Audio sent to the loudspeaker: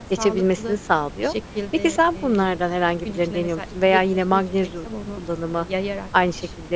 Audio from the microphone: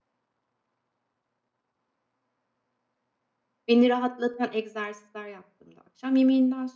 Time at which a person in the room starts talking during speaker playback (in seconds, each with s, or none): 3.7 s